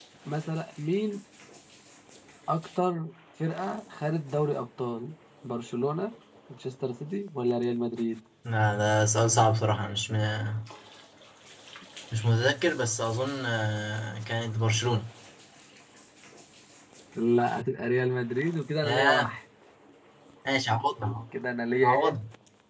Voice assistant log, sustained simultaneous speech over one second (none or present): none